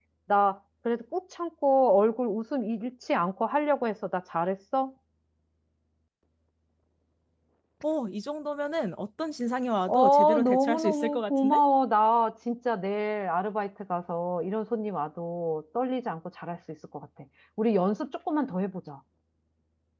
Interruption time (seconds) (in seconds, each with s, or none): 9.9 s